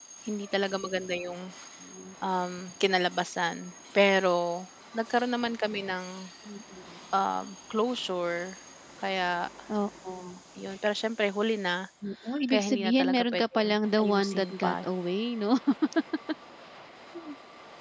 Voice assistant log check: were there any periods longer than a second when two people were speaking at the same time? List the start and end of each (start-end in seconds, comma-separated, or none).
12.5-14.7